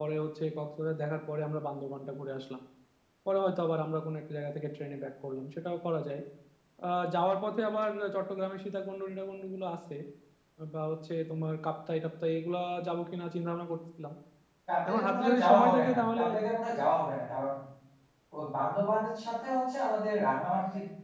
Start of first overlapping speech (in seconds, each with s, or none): 14.9 s